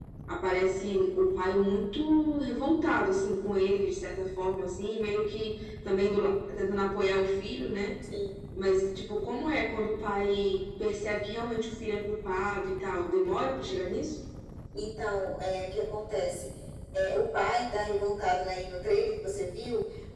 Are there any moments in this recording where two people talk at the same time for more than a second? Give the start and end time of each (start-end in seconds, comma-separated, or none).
none